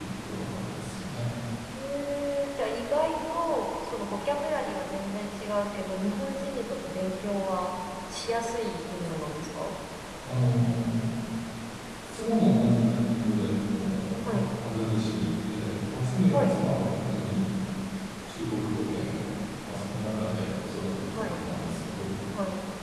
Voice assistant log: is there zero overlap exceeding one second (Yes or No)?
Yes